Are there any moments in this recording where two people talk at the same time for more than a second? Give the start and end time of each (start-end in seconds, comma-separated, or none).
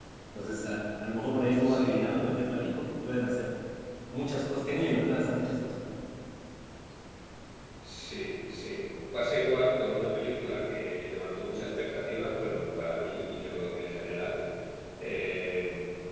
none